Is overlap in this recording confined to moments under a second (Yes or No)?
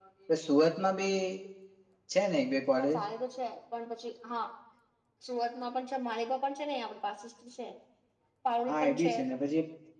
Yes